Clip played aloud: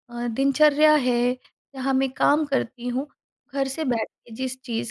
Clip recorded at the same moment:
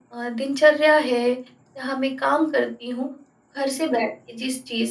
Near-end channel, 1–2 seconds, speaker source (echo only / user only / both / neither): echo only